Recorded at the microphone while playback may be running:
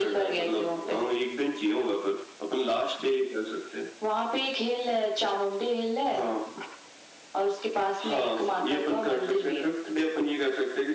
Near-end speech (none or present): none